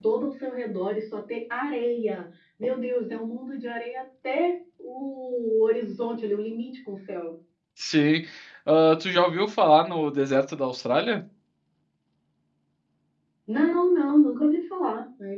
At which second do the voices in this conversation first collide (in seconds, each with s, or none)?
none